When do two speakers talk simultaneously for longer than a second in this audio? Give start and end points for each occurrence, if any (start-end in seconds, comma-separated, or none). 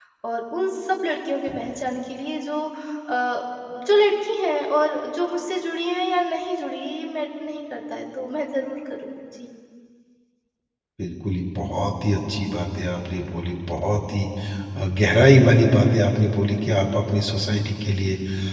none